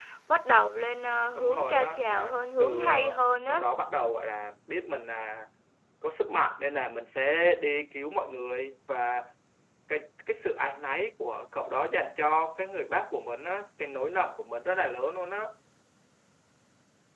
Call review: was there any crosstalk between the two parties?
Yes, from 1.4 s

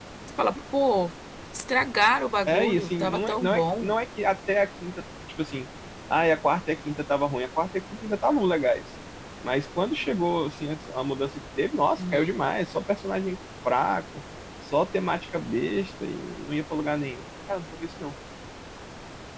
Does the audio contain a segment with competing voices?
Yes, from 2.5 s

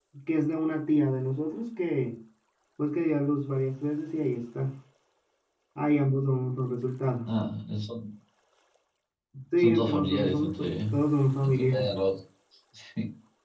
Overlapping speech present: Yes, from 9.6 s

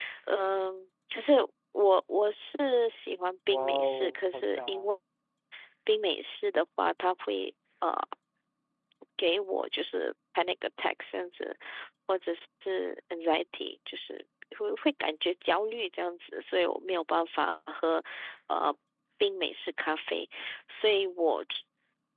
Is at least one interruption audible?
Yes, from 3.5 s

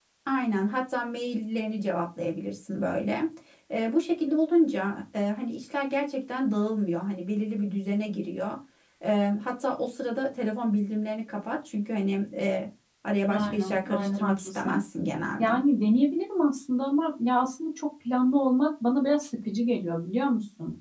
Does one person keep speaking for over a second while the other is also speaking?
Yes, from 13.2 s

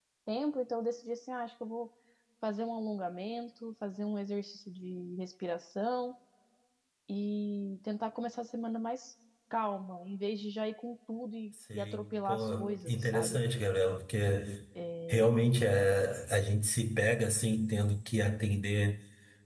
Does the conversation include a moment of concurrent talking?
Yes, from 11.7 s

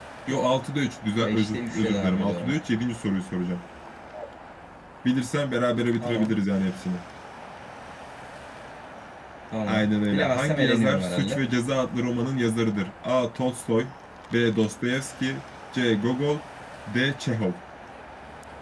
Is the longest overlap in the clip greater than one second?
Yes, from 1.2 s

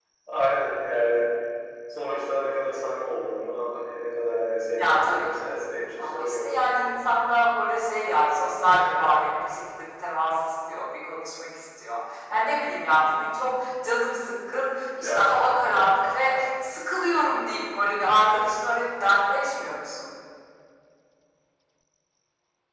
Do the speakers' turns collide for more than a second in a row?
Yes, from 4.8 s

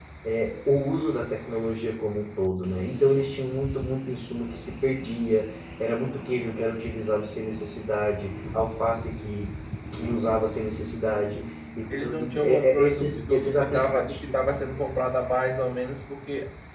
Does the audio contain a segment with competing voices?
Yes, from 11.9 s

